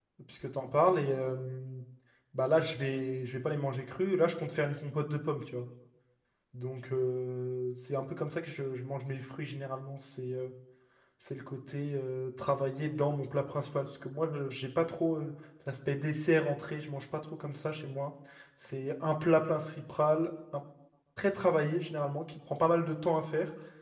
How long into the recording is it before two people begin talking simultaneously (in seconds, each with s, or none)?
none